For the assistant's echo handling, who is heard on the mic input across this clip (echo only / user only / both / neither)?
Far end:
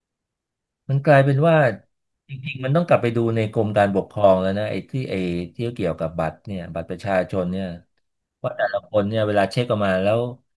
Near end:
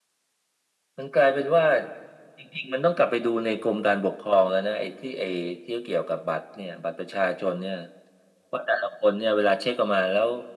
echo only